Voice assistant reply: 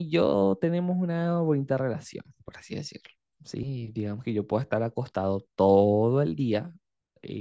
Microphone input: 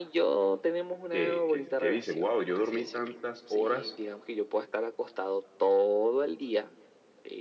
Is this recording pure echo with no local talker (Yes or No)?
No